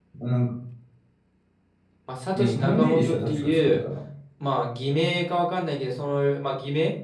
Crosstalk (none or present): present